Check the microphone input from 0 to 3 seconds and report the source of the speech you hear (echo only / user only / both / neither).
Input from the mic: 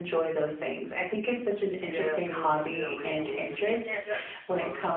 both